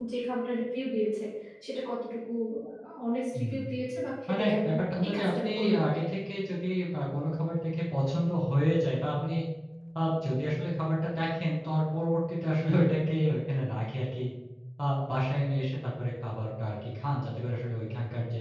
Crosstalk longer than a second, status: present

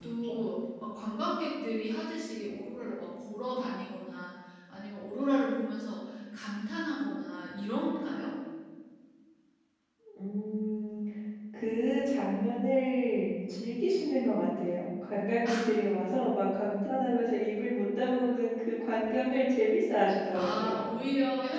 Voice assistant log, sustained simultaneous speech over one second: none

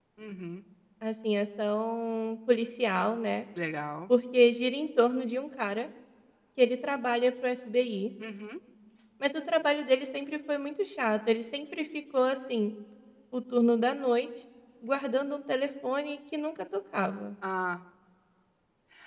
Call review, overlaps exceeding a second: none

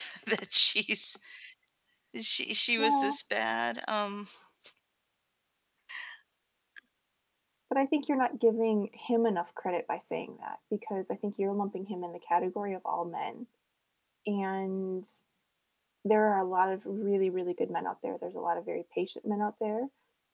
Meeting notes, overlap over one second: none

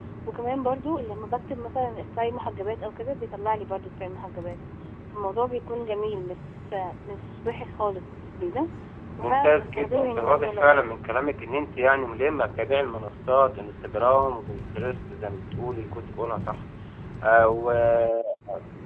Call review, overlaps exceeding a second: present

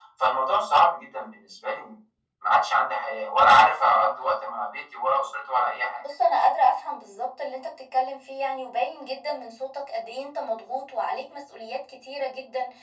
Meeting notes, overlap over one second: none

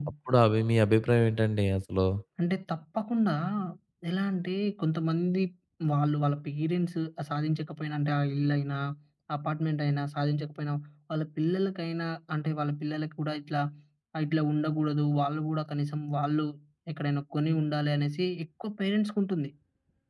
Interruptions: none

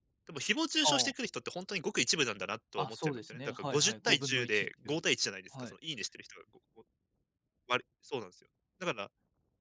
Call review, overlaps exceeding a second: present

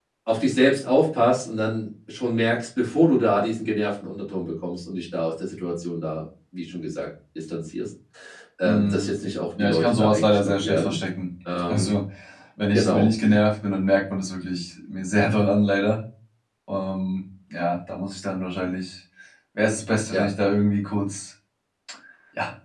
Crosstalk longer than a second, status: present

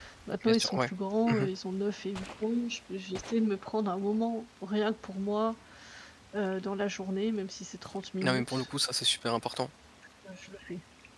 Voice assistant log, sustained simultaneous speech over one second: none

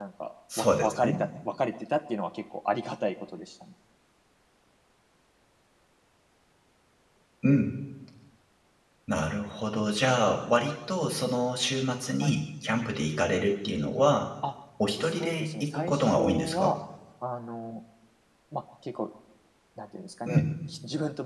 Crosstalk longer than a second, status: present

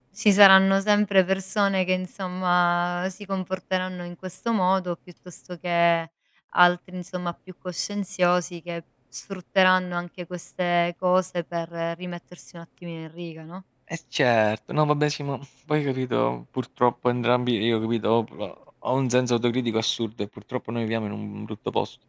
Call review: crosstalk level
none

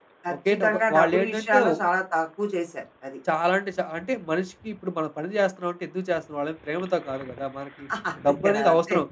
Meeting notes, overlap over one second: present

